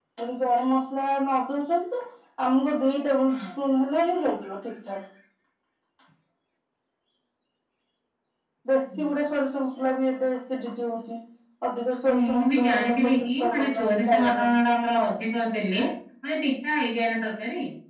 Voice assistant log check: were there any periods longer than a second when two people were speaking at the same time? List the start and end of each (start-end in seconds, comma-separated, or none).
12.1-14.5